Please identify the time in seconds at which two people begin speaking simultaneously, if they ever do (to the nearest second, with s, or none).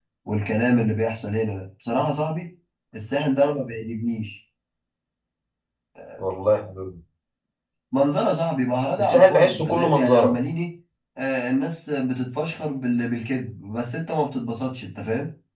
9 s